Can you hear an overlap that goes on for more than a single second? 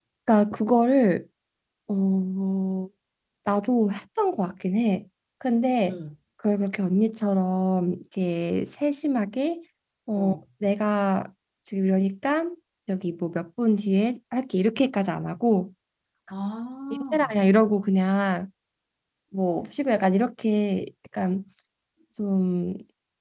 No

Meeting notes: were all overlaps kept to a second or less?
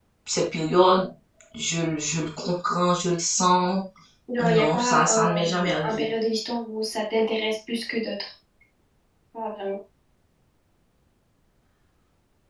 No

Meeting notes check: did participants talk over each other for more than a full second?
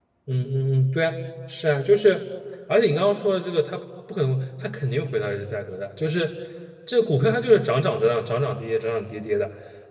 No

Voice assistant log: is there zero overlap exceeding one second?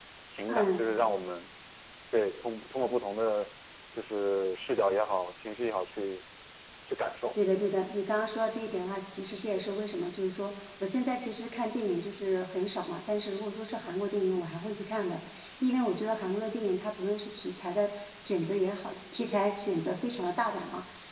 Yes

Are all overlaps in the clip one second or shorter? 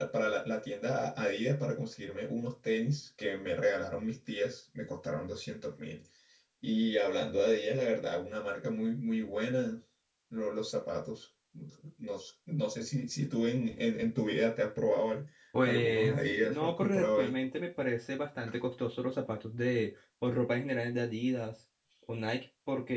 No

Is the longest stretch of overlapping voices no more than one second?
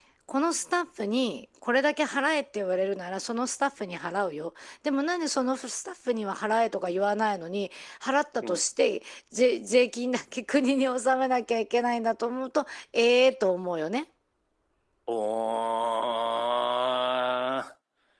Yes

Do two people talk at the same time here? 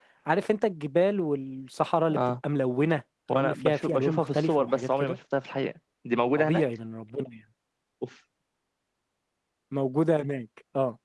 Yes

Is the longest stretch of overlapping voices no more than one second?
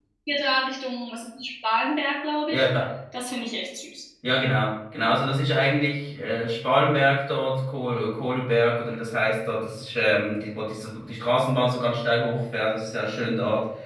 Yes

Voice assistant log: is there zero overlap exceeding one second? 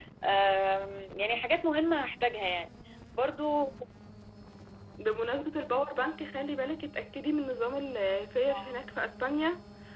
Yes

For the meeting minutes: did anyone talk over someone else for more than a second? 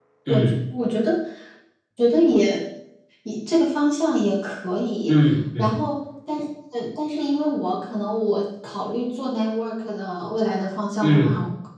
No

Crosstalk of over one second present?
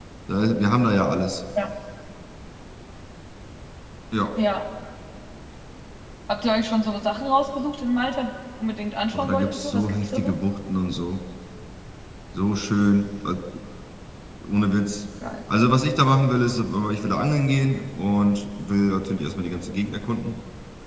Yes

